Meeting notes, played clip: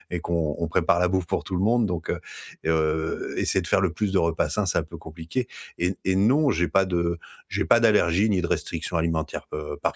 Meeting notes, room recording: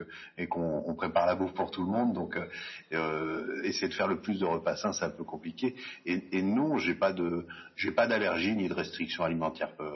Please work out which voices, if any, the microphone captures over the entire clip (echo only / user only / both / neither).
echo only